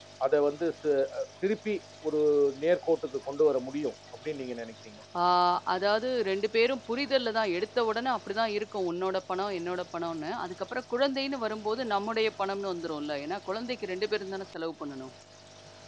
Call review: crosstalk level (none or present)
none